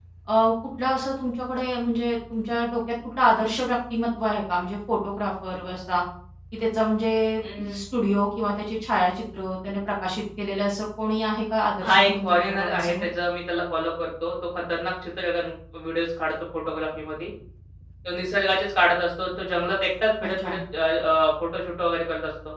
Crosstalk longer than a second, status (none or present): present